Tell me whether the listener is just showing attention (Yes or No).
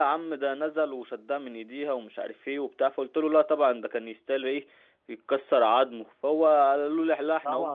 No